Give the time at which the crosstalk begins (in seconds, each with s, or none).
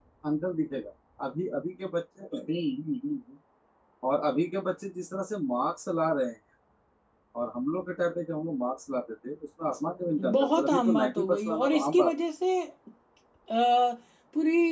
10.2 s